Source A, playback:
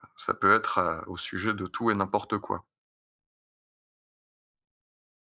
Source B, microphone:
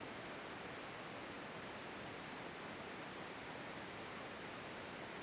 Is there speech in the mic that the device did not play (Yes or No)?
No